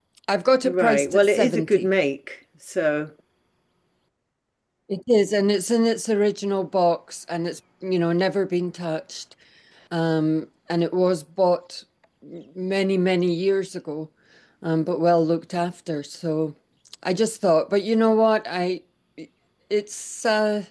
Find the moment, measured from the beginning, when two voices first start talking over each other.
0.6 s

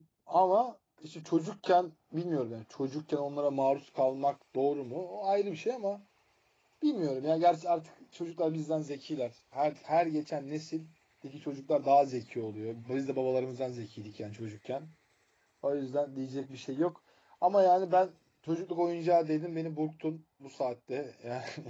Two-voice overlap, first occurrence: none

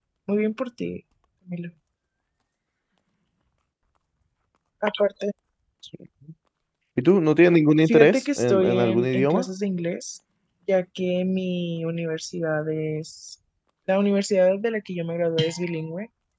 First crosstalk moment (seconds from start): 7.8 s

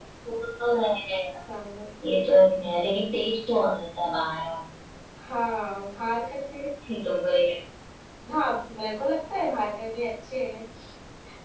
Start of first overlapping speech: none

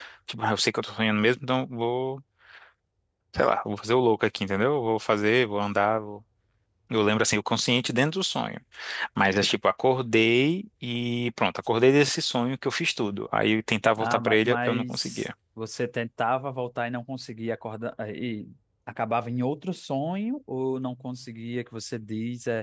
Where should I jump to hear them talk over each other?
14.0 s

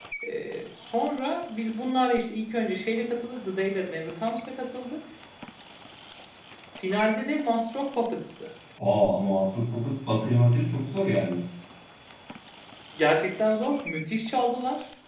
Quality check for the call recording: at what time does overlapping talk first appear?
none

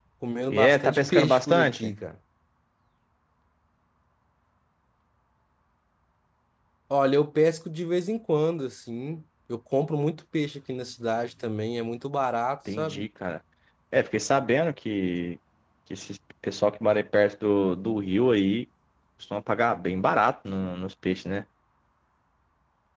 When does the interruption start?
0.5 s

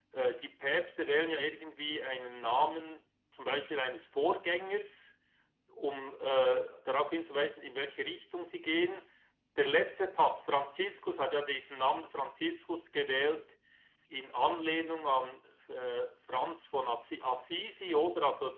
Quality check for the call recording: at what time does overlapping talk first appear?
none

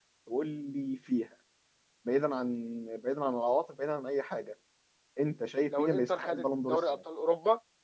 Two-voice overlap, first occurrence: 5.7 s

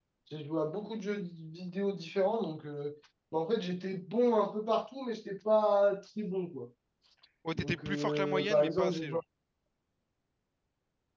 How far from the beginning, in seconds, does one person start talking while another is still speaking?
7.5 s

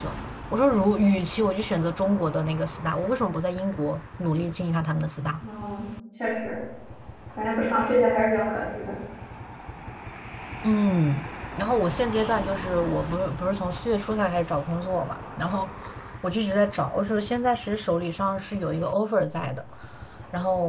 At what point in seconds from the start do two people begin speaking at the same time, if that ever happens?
none

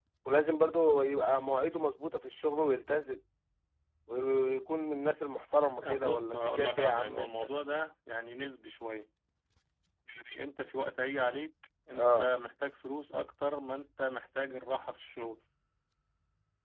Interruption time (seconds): 5.8 s

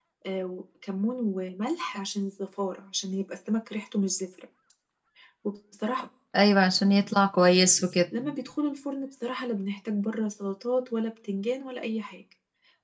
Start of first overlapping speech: none

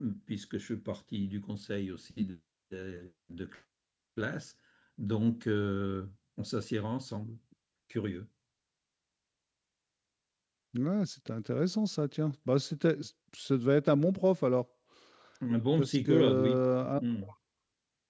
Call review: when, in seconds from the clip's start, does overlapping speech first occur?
15.8 s

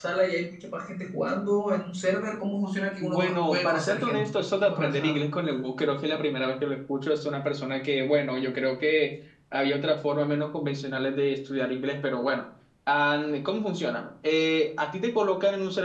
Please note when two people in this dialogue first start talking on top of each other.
3.0 s

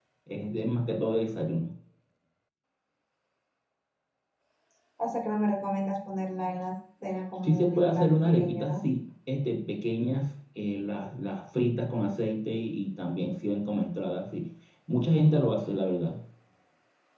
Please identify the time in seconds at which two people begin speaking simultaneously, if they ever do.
7.4 s

